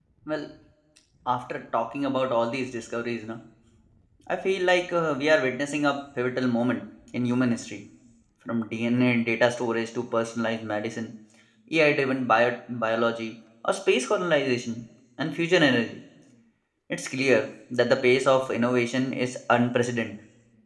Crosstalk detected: No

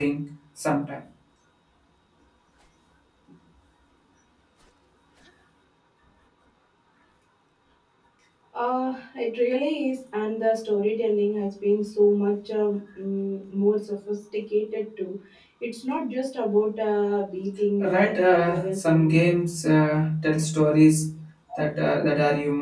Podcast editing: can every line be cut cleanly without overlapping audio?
No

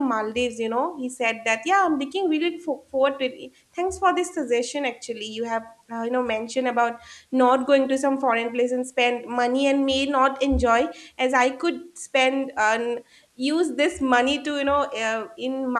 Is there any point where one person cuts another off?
No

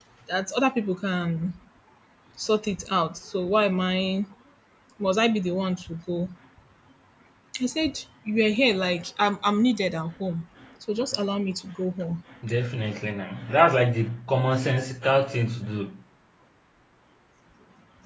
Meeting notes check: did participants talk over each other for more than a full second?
No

